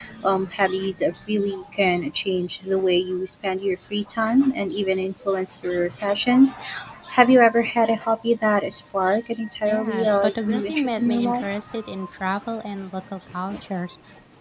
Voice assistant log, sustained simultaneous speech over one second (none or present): present